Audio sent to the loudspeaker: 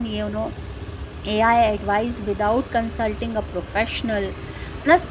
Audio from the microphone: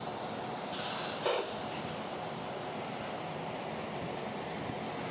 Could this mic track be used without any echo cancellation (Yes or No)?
Yes